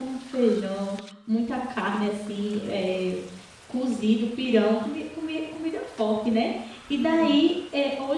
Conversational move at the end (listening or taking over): listening